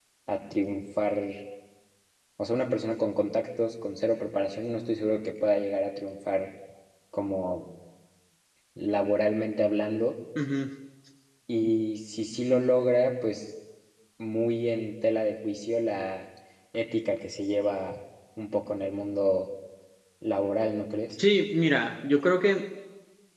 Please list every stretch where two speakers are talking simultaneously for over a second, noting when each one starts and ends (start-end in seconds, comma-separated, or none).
none